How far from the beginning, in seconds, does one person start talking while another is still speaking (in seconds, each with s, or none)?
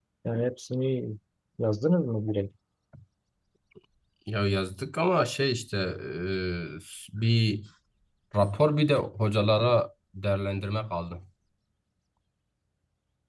none